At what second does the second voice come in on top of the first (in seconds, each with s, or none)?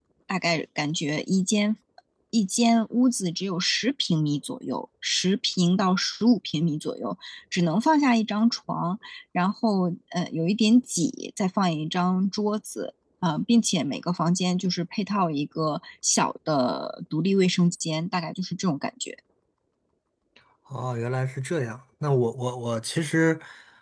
none